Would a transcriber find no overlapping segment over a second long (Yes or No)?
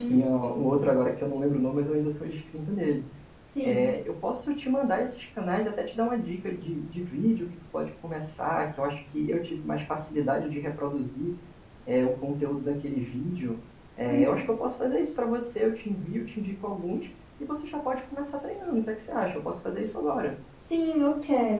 Yes